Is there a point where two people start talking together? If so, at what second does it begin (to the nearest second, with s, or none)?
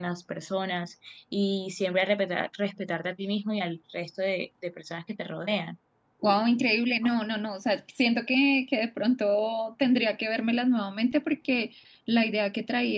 none